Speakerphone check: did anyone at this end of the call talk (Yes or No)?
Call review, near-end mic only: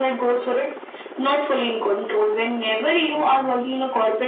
No